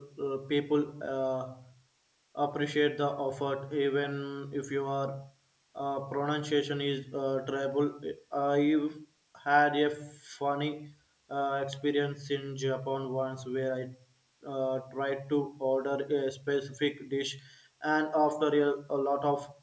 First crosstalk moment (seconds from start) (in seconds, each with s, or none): none